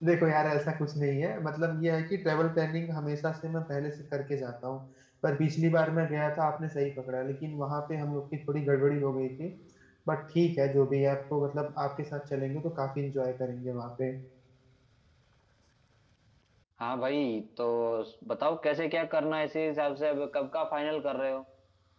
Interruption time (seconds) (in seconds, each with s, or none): none